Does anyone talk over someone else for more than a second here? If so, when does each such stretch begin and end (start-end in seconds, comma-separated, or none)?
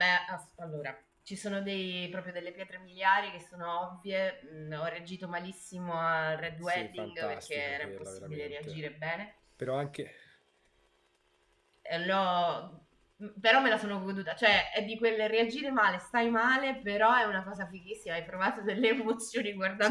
6.6-8.8